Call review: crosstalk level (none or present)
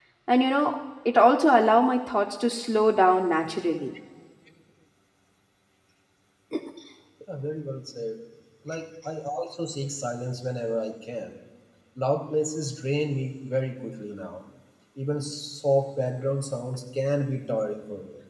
none